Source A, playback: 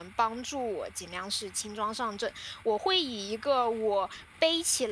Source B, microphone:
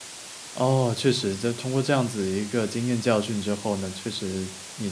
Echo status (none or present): none